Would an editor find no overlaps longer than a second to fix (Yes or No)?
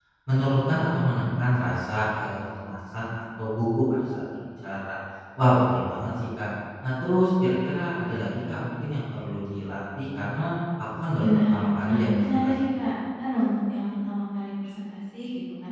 No